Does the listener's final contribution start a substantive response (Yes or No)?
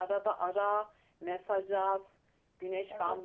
No